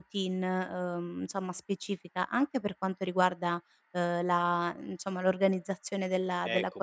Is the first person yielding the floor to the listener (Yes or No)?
Yes